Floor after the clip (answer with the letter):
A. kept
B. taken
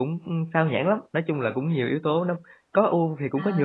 B